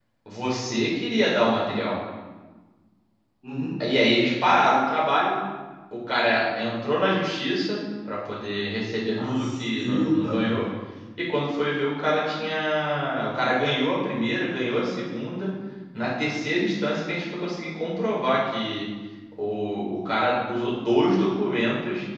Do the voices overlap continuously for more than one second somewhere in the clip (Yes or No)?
Yes